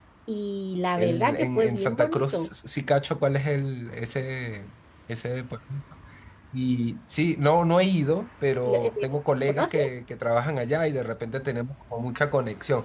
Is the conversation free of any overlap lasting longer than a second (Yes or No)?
No